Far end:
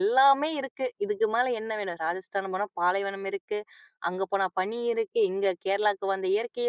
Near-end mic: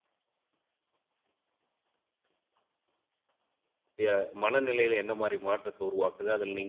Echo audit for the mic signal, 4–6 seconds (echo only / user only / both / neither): user only